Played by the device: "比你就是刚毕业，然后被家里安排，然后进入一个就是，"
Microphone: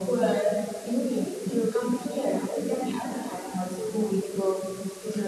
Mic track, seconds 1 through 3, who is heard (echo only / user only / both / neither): echo only